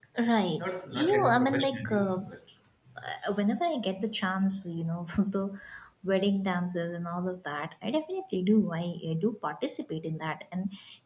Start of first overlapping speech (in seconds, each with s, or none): 0.6 s